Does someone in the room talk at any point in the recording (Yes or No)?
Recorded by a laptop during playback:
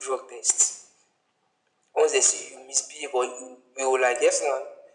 No